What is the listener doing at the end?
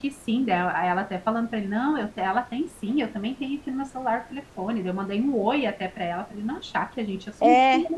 taking over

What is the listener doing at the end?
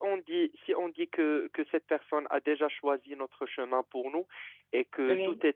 listening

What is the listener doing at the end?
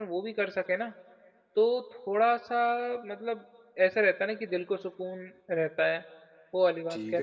taking over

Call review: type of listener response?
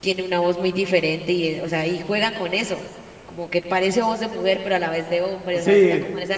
taking over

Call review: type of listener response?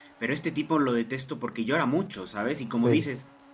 listening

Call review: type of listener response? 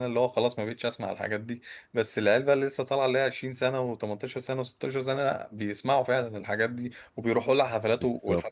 taking over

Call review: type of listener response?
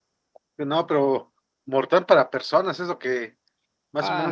taking over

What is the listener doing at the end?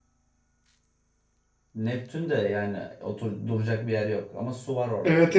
taking over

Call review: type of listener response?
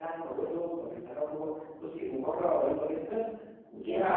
listening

